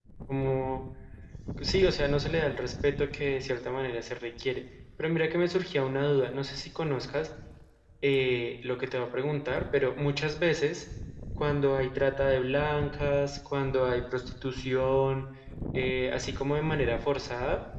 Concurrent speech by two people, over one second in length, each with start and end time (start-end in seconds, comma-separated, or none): none